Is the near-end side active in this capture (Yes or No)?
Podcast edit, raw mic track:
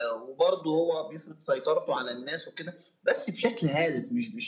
No